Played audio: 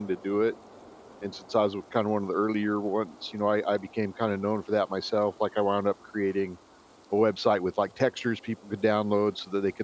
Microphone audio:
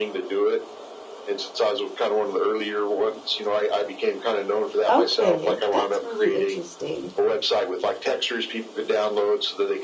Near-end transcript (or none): Okay, that's really interesting.